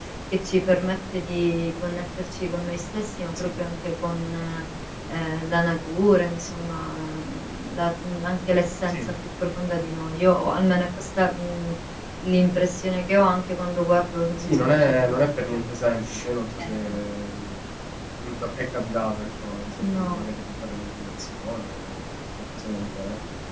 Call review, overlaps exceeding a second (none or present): present